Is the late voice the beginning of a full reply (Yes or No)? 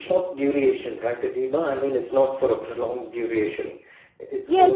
Yes